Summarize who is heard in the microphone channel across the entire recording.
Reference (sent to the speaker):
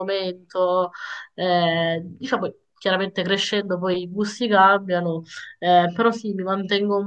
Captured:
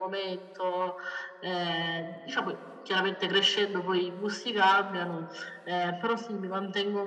echo only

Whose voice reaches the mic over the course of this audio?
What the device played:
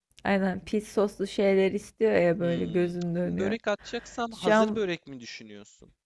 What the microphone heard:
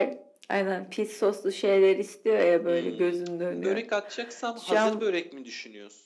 echo only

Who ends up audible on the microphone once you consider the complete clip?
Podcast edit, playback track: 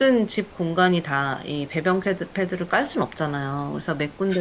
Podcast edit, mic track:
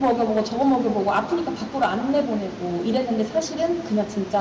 user only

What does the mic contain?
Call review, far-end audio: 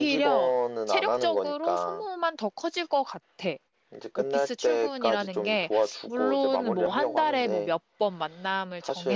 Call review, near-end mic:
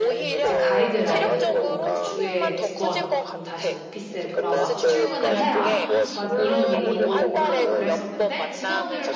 both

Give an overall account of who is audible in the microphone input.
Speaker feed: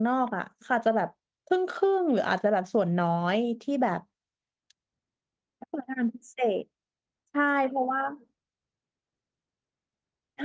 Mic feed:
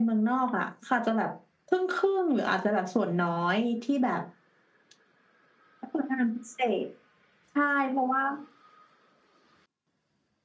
echo only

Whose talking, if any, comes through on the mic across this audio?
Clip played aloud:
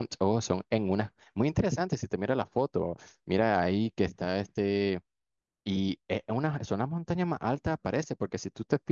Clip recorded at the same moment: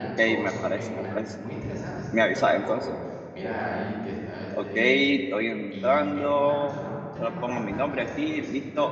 both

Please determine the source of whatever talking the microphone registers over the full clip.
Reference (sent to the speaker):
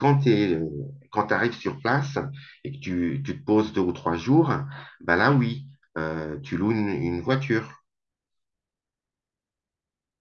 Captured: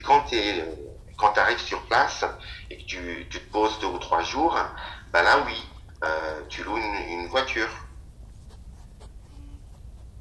echo only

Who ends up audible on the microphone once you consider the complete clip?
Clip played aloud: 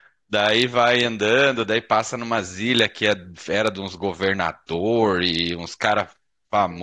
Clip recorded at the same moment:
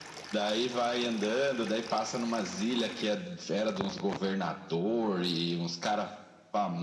echo only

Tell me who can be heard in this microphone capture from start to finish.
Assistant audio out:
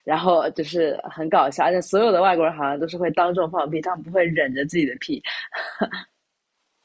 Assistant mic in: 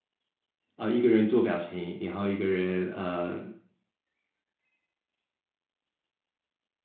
user only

